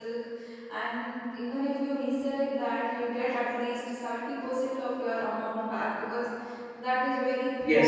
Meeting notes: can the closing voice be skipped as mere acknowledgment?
No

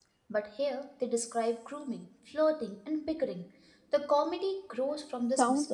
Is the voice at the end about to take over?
Yes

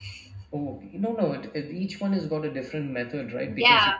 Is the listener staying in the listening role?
No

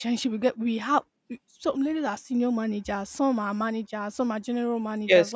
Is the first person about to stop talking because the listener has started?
No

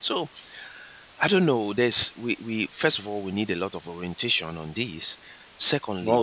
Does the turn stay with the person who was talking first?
Yes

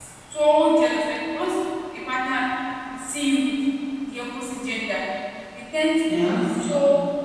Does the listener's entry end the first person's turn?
No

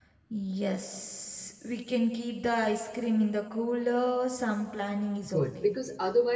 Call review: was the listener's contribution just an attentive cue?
No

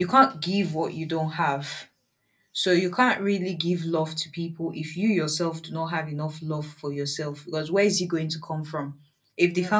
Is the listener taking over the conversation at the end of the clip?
No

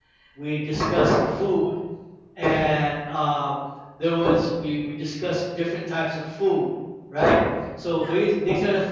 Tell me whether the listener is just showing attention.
Yes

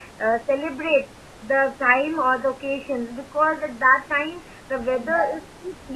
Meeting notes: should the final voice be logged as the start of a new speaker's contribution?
No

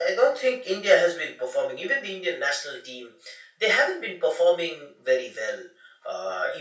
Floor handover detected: No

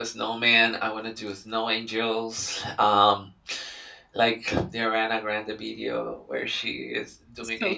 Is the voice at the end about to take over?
No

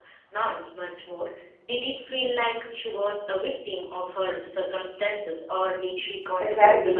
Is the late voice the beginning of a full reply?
Yes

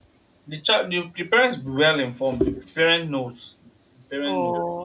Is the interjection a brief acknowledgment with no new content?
No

